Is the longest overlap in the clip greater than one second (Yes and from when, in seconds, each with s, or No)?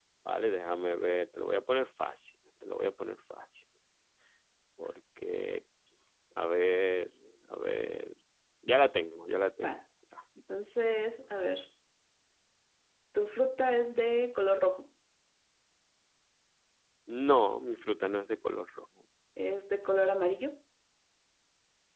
No